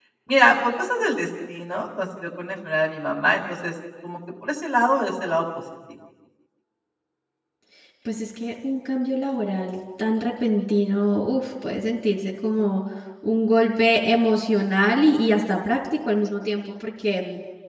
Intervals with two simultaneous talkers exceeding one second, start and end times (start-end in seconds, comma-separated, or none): none